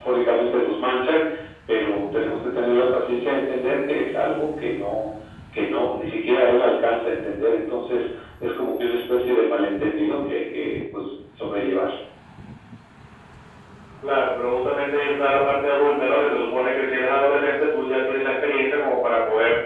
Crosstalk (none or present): none